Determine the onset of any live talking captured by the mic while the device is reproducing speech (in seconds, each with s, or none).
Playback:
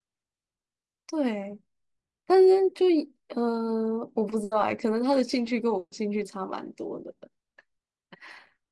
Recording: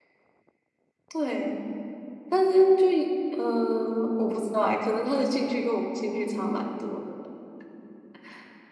none